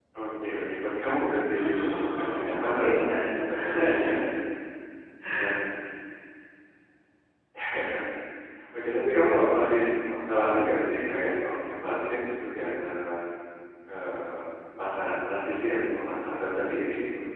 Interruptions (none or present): present